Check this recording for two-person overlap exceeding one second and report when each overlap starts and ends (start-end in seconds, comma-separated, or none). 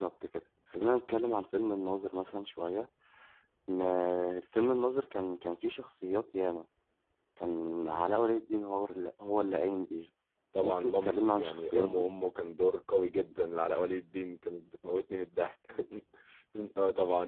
10.6-12.1